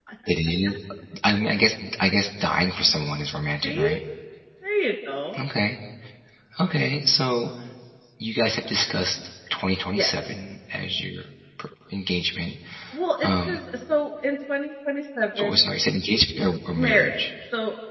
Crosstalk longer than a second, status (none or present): none